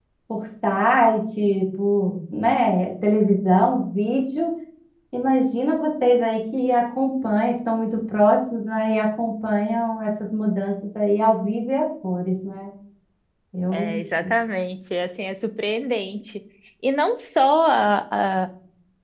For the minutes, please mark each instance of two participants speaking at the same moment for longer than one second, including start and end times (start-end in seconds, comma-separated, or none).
none